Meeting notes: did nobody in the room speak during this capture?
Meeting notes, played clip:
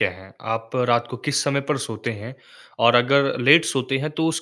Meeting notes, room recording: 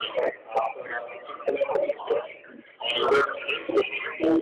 Yes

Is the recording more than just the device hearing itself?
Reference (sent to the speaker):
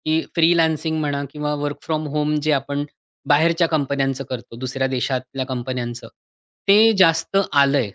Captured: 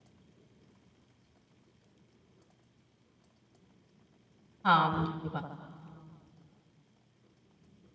Yes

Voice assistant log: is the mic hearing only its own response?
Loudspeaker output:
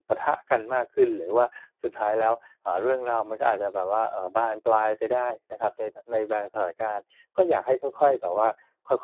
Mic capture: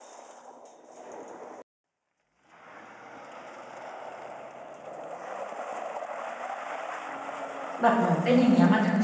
No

